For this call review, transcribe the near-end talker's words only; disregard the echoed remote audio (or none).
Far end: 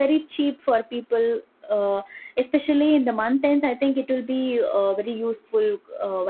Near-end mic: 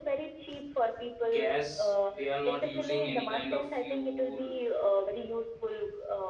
gas they are not using any kind of fuel